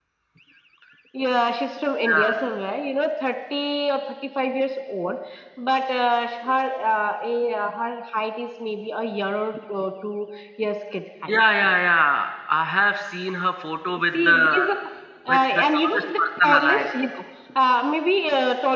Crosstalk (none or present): present